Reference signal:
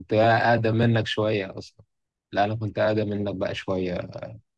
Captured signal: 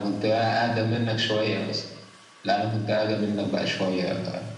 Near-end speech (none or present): none